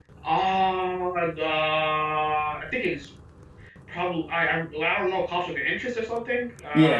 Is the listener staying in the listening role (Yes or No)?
No